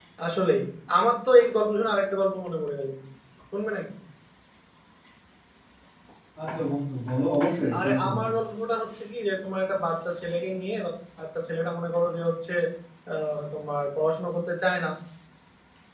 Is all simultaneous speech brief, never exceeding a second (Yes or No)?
Yes